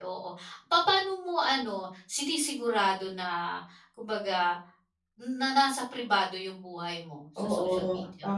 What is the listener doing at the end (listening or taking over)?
taking over